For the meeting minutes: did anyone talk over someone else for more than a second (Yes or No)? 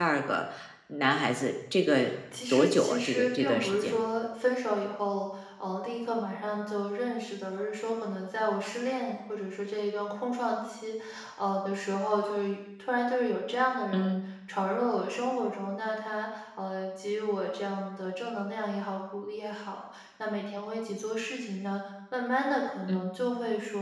Yes